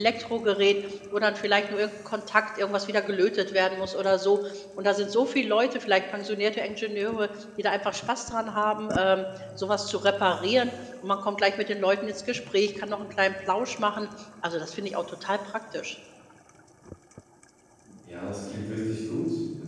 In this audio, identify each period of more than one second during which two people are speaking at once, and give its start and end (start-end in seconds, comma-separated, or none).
none